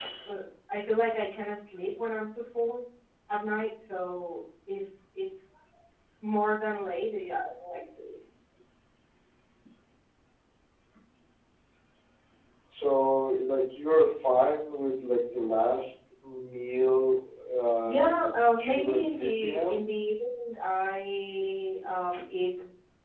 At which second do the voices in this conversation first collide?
17.8 s

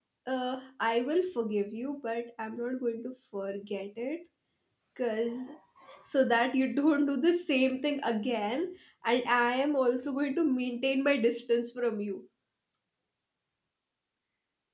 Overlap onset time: none

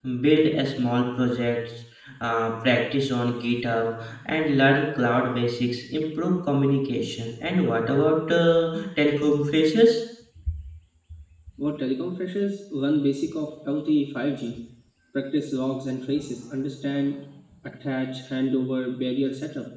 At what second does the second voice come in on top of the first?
none

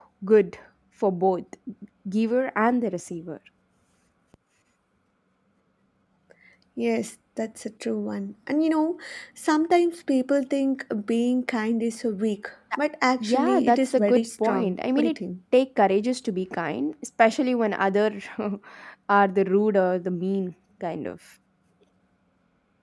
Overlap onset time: 13.2 s

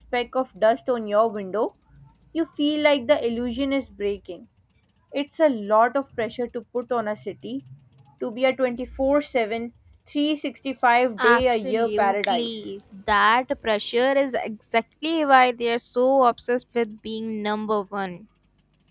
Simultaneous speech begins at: 11.2 s

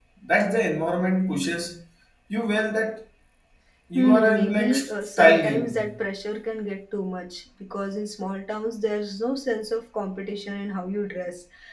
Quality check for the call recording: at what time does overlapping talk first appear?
4.0 s

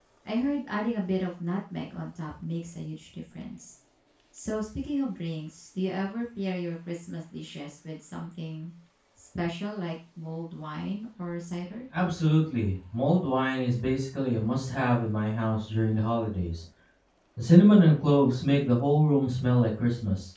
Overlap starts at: none

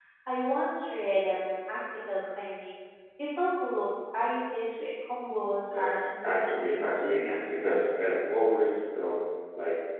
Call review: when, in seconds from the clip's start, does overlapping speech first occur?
5.7 s

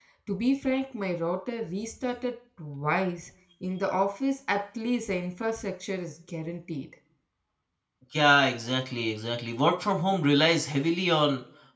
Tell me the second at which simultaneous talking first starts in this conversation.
none

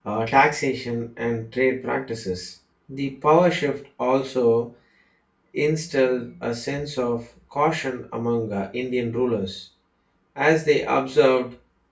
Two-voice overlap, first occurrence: none

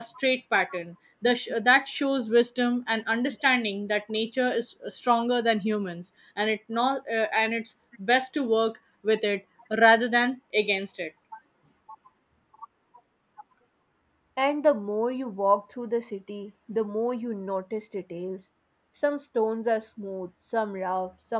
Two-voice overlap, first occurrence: none

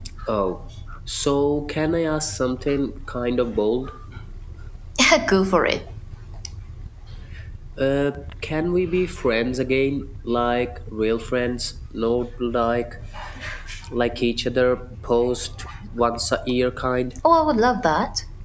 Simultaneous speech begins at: none

